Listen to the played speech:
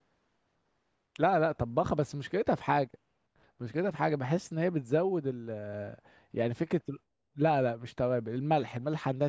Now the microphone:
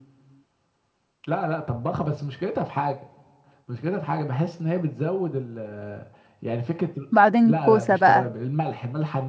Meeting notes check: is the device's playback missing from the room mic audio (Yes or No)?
No